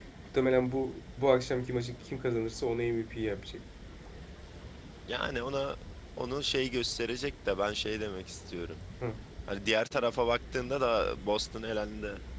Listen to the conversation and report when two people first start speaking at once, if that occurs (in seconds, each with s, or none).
none